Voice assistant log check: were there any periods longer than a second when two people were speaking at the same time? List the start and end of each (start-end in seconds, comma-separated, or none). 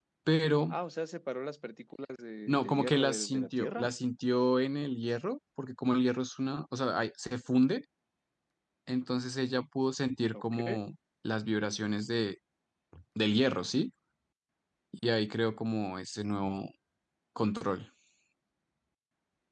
2.5-3.9